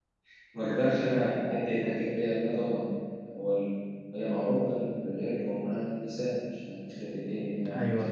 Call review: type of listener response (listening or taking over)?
taking over